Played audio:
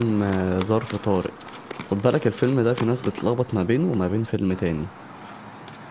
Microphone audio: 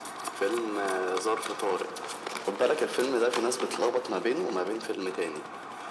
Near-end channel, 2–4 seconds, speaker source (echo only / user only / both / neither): echo only